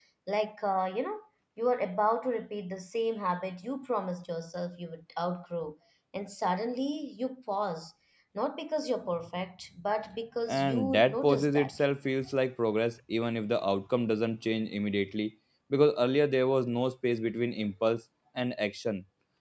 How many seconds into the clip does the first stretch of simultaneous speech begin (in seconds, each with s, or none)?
10.5 s